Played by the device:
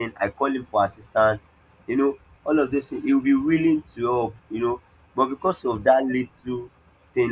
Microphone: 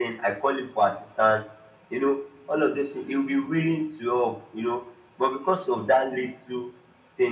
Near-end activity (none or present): none